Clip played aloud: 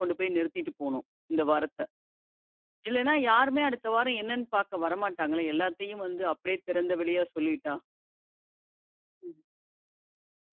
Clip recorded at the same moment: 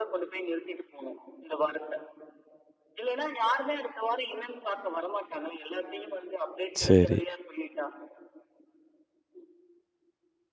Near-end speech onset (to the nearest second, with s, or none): 7 s